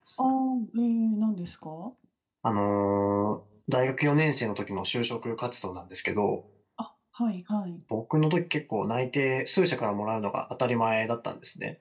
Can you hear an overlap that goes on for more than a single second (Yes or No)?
No